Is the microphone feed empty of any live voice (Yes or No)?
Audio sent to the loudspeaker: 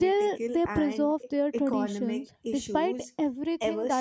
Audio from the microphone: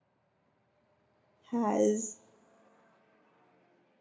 No